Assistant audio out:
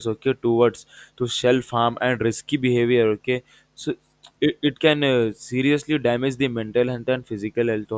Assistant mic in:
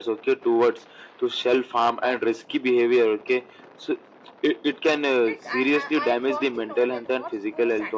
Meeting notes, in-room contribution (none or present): present